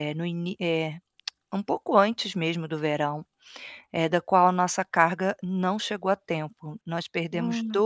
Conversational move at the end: listening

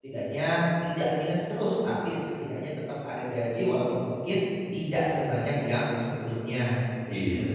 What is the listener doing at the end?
taking over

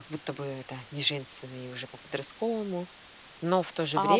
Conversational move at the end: taking over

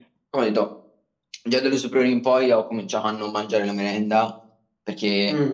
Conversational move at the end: listening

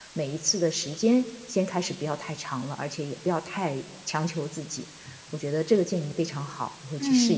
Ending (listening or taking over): taking over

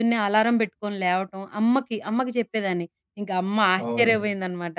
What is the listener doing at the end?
listening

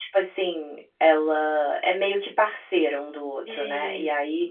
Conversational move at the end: listening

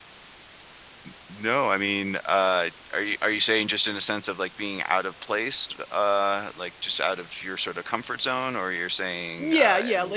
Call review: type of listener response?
taking over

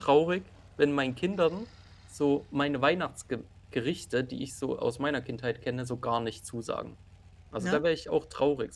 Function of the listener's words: listening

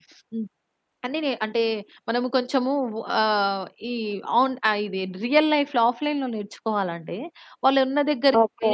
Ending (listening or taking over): listening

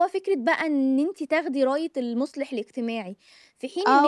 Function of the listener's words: taking over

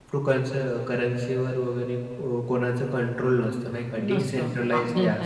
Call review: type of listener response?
taking over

